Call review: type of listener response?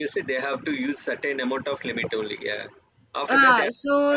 taking over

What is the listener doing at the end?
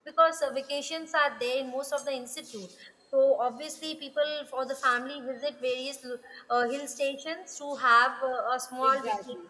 taking over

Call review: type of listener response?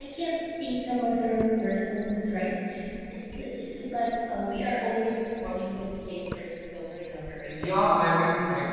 taking over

